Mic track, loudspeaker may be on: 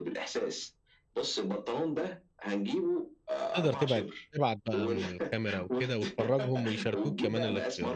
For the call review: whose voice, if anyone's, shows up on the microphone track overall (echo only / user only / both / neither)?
both